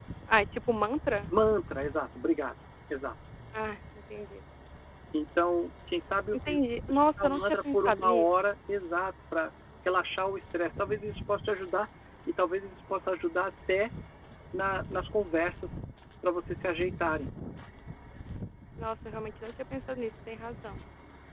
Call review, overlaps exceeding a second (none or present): present